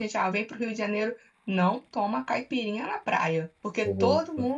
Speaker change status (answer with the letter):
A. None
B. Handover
A